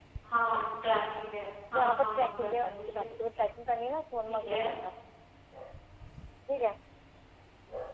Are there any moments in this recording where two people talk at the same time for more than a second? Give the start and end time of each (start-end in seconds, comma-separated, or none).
1.7-3.0